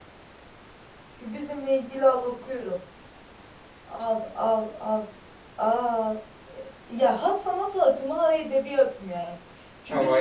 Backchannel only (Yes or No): Yes